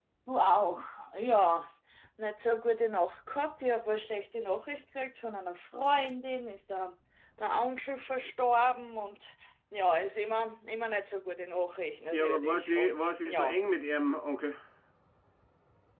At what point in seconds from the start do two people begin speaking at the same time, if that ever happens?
12.1 s

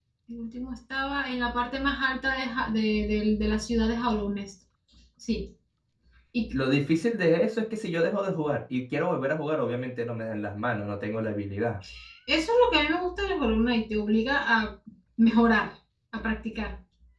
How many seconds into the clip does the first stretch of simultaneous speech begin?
none

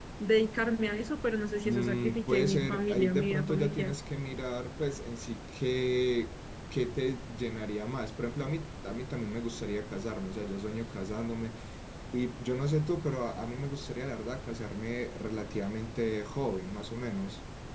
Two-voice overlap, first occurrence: 1.6 s

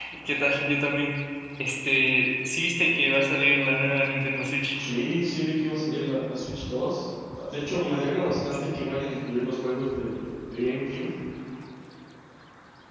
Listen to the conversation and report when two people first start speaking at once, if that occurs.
none

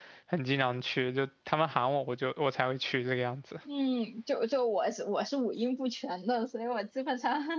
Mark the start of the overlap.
none

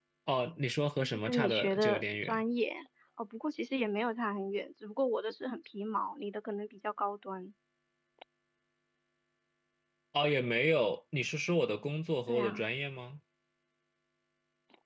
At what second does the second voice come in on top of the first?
1.0 s

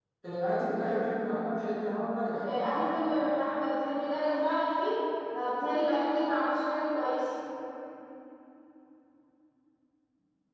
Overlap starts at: none

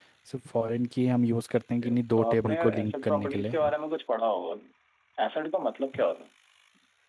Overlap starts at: 1.8 s

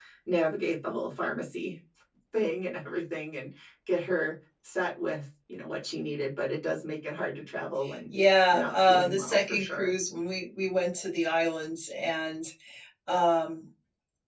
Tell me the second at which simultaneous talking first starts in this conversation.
8.5 s

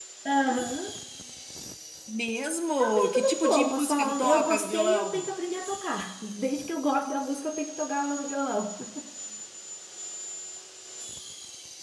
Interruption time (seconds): 2.8 s

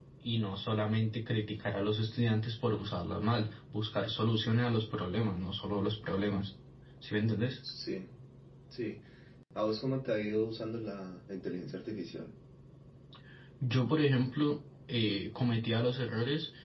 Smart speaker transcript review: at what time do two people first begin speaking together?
none

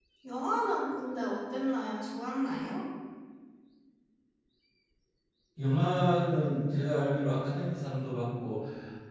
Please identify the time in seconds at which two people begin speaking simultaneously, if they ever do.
none

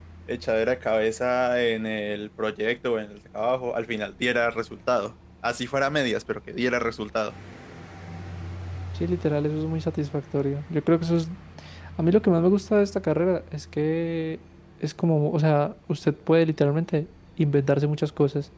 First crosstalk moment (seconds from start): none

